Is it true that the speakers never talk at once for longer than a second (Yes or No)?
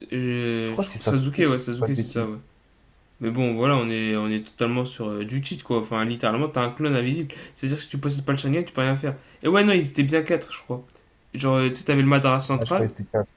No